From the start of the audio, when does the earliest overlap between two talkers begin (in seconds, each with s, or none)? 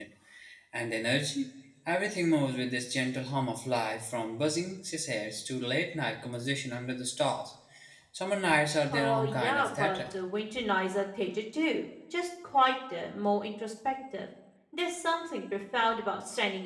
8.9 s